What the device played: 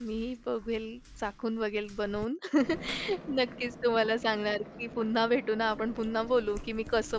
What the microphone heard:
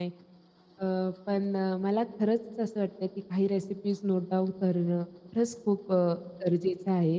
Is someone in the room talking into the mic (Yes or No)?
Yes